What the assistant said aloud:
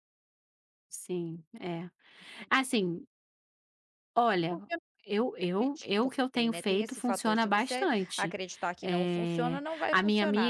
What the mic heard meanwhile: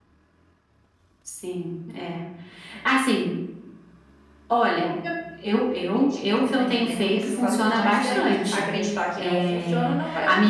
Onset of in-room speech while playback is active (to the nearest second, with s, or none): 6 s